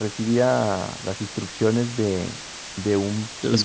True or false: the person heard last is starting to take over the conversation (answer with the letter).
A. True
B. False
B